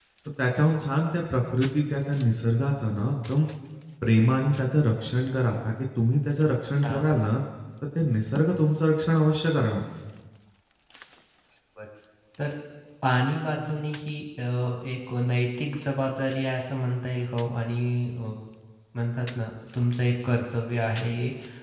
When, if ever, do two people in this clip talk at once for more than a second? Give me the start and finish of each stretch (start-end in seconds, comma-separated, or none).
none